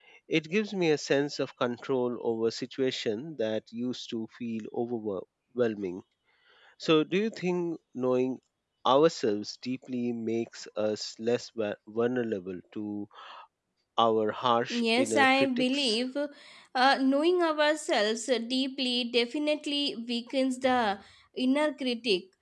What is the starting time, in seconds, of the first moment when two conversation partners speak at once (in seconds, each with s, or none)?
14.7 s